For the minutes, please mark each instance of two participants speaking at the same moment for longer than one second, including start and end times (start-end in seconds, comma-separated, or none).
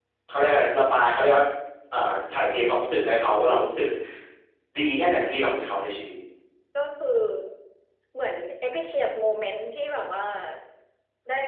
none